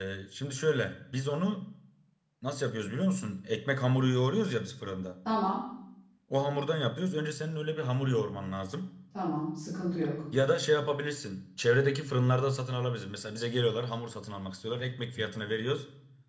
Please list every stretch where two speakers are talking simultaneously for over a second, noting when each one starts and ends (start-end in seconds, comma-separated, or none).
none